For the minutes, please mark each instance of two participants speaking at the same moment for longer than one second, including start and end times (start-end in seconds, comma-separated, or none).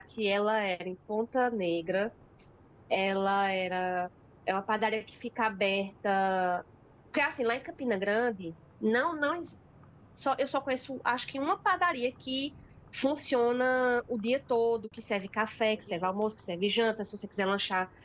none